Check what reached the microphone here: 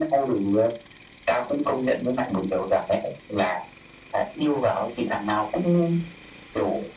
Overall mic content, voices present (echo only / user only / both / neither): echo only